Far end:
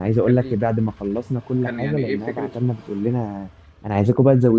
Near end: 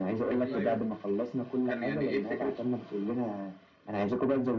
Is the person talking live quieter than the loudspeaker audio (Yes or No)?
Yes